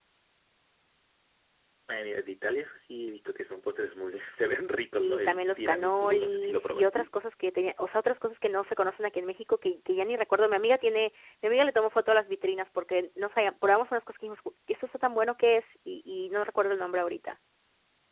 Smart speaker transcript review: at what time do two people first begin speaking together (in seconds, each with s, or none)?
5.0 s